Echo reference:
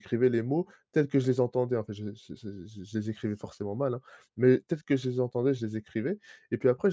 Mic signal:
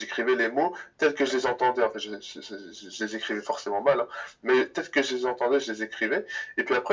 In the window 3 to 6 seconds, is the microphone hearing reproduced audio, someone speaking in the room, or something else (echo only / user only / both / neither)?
echo only